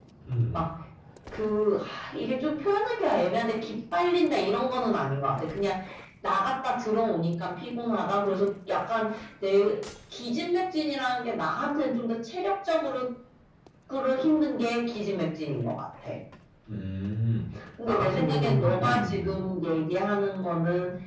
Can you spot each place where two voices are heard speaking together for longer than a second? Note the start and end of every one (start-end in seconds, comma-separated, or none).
17.9-19.3